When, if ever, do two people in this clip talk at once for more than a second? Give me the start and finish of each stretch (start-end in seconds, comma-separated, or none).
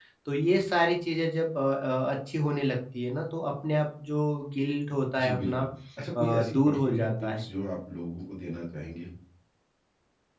6.2-7.5